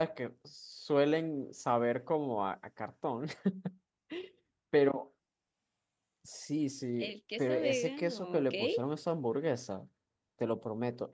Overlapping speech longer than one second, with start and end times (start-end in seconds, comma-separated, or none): 7.0-8.5